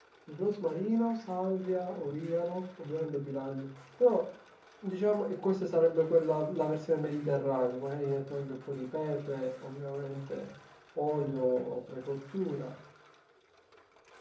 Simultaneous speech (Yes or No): No